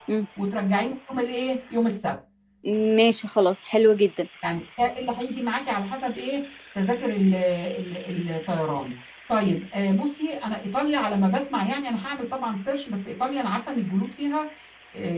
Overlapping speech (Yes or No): No